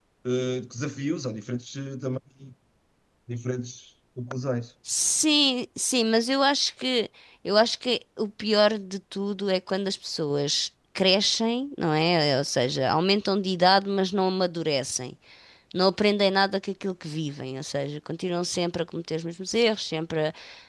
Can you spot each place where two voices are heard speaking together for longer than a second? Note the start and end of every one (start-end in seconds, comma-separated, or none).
none